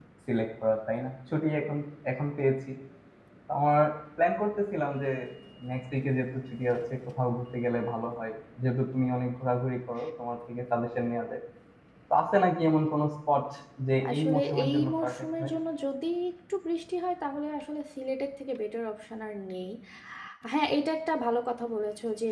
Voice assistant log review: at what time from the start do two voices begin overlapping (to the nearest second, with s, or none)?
14 s